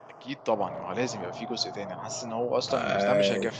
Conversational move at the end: listening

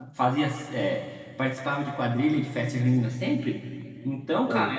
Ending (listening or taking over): listening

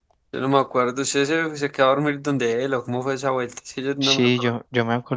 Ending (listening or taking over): taking over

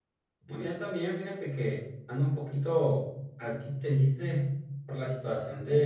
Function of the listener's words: listening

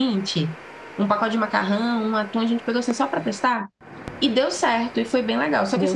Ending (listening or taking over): listening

